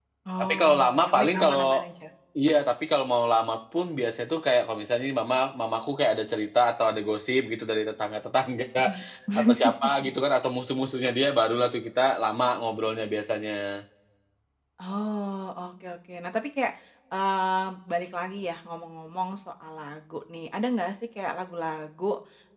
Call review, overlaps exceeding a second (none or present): present